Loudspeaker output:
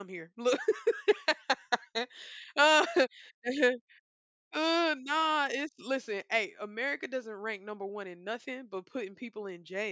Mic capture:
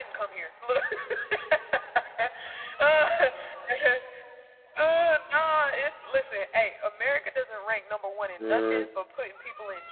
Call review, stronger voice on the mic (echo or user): user